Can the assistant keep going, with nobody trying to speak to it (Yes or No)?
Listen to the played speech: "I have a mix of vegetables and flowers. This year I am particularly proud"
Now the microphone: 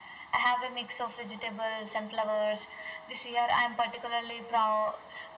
Yes